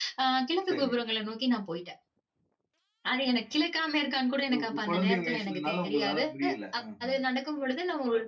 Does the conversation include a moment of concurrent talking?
Yes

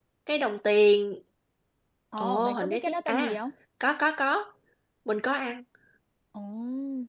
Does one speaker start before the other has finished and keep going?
Yes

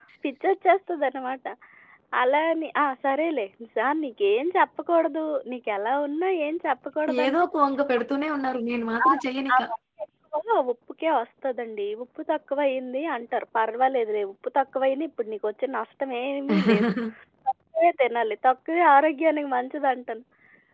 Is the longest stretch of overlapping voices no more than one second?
Yes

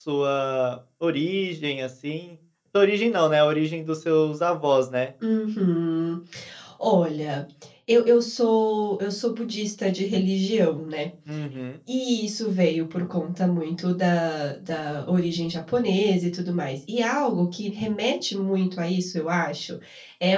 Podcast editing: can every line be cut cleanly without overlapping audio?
Yes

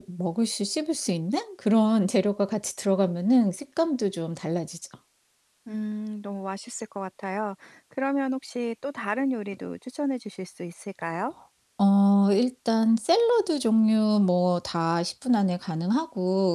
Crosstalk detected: No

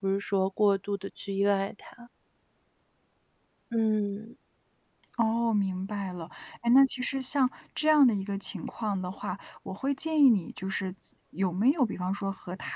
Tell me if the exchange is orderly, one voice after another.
Yes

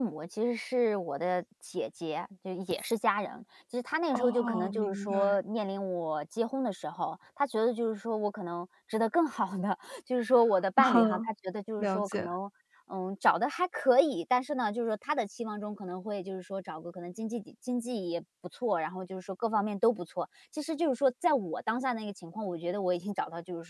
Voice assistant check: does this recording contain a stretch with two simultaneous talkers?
Yes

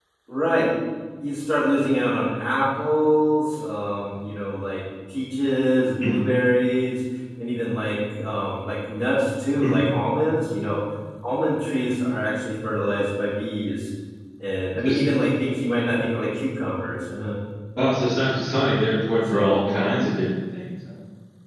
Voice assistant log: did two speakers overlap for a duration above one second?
No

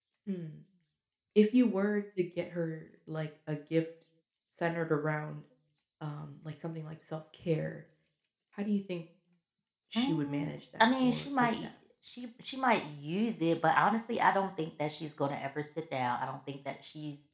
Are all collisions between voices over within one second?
No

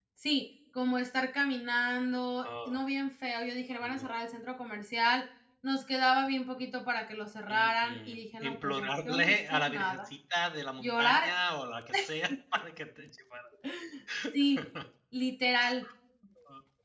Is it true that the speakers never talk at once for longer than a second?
No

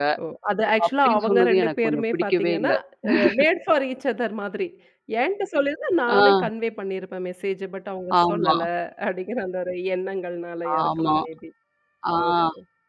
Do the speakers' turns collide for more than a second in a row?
Yes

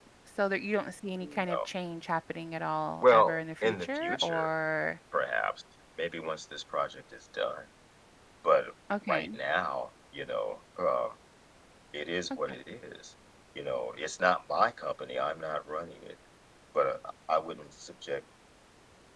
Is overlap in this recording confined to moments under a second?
No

